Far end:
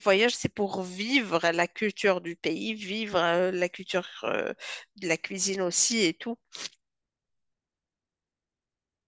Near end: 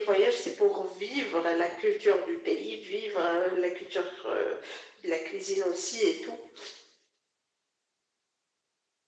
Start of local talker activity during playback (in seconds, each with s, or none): none